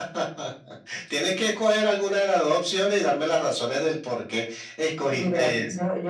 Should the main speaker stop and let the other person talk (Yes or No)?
Yes